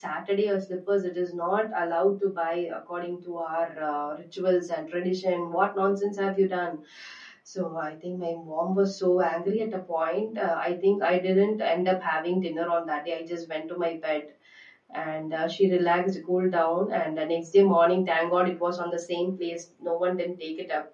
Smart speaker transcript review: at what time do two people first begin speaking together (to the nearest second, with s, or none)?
none